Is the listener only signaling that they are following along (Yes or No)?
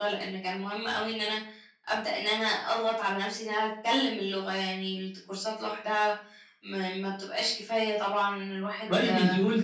No